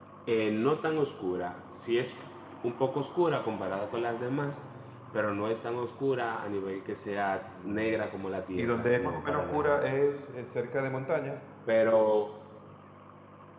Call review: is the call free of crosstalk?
No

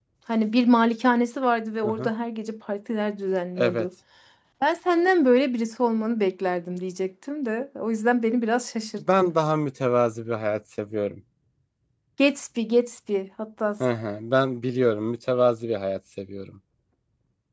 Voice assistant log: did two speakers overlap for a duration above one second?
No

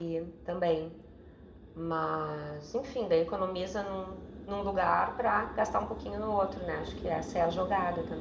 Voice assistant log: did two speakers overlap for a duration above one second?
No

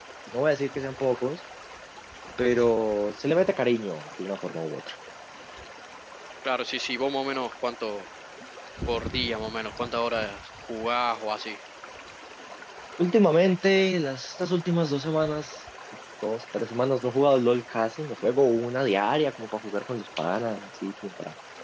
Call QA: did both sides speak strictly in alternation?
Yes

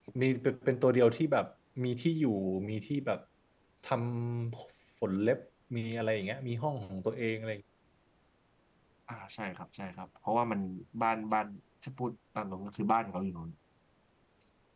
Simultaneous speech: No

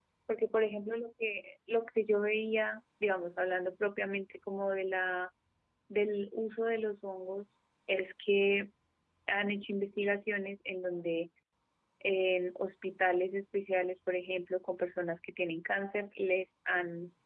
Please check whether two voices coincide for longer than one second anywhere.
No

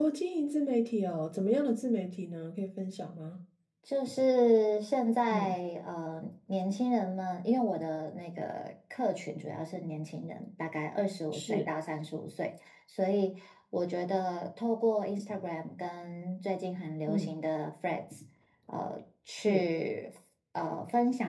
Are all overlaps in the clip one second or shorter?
Yes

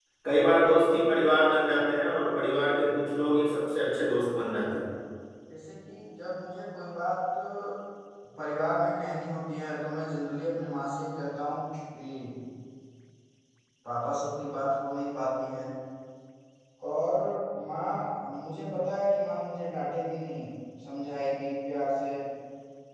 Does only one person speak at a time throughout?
Yes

